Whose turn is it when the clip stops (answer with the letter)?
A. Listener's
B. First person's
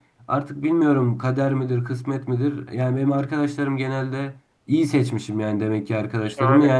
B